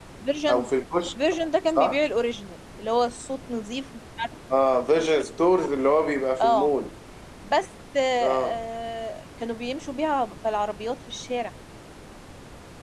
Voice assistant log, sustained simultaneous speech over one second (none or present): none